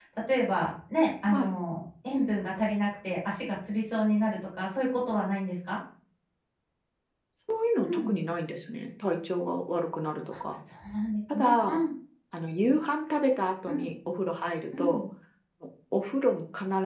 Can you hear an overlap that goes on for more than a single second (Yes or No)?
No